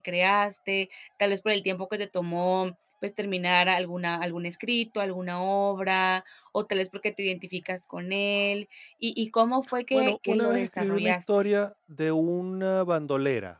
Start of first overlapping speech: 9.9 s

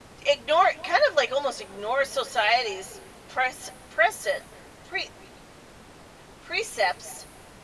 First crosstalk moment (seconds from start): none

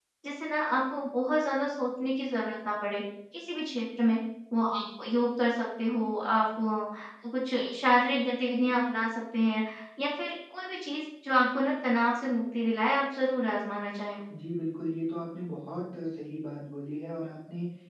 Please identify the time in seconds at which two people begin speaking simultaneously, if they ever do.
none

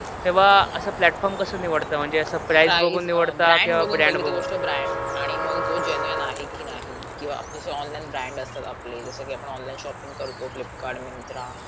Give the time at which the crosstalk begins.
2.6 s

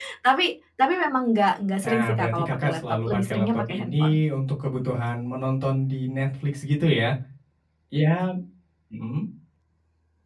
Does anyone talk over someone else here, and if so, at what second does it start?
1.8 s

